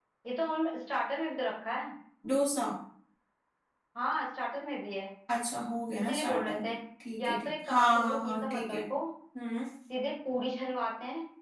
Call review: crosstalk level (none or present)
present